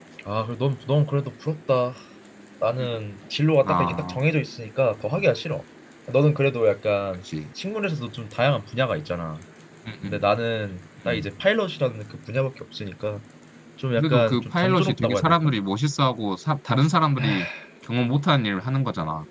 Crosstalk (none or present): present